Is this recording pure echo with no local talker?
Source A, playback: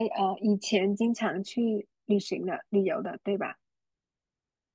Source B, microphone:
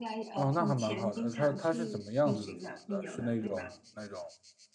No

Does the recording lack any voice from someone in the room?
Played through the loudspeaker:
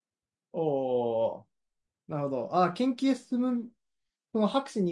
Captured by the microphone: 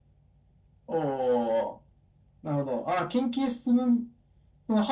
Yes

